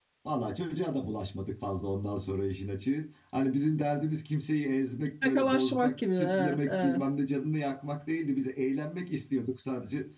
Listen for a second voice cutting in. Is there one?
Yes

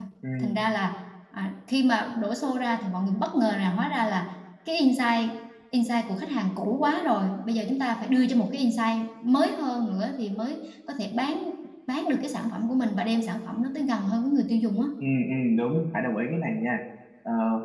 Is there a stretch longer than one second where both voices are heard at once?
No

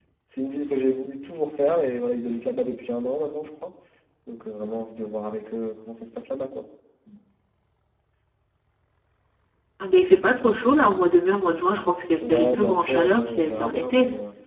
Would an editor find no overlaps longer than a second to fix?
No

